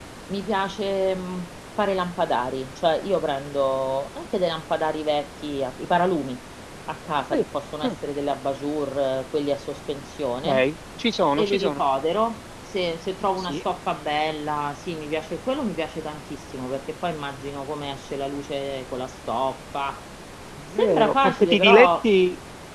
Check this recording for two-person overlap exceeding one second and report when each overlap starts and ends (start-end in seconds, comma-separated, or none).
20.8-22.1